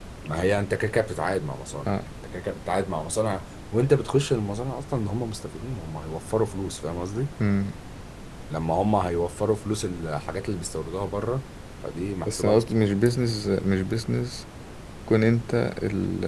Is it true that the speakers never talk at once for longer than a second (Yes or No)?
Yes